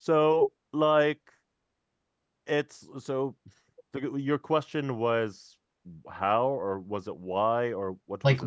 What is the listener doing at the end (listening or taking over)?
taking over